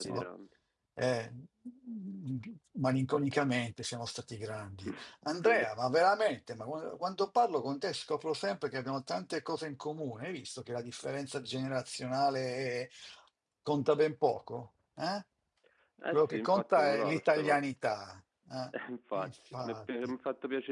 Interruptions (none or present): present